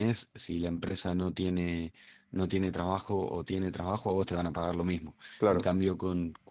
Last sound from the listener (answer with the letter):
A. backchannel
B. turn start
A